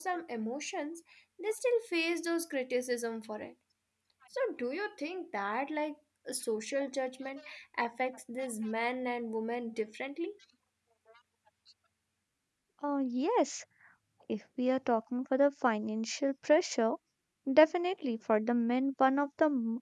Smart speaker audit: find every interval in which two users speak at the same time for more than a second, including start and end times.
none

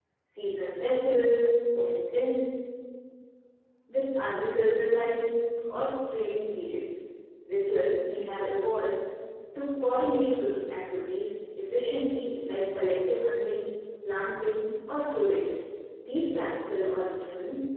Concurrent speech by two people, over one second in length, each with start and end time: none

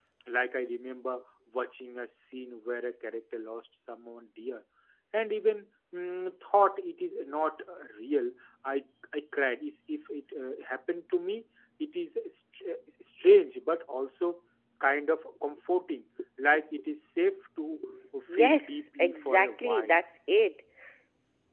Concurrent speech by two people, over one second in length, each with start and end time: 18.3-20.0

